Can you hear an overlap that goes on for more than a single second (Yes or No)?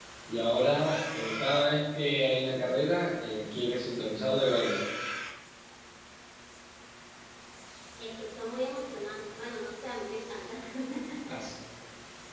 No